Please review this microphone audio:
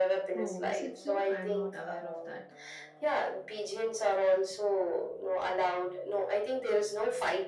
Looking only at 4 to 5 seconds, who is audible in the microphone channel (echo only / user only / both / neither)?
echo only